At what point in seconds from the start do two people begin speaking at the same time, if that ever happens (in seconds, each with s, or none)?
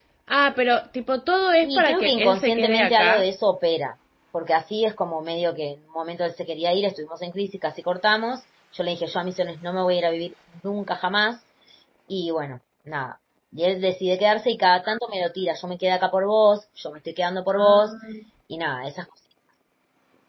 1.6 s